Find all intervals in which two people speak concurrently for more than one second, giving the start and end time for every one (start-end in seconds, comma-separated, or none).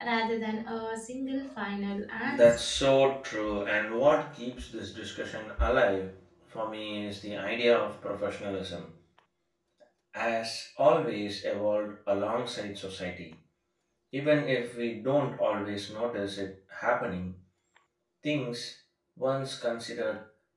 none